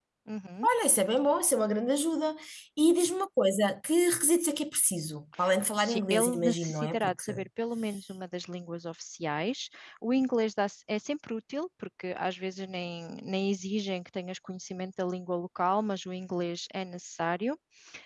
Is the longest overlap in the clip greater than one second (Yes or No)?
Yes